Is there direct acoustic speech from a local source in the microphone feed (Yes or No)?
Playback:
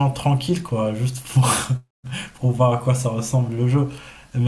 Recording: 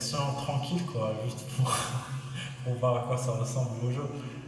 No